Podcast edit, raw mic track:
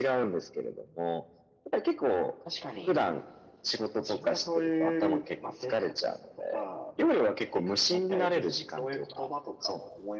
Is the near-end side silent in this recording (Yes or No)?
No